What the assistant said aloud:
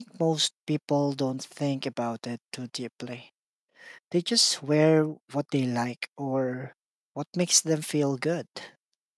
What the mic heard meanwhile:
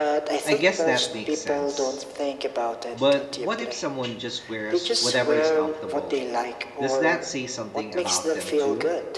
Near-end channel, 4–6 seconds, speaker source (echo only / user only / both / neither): both